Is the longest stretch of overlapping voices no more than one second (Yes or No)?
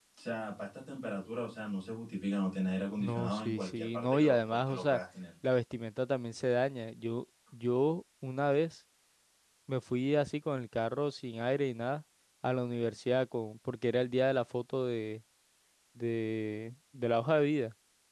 No